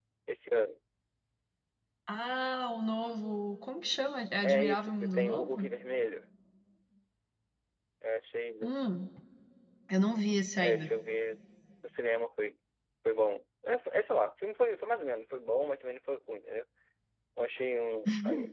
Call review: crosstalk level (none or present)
present